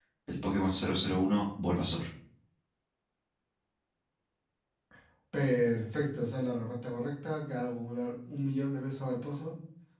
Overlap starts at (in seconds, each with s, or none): none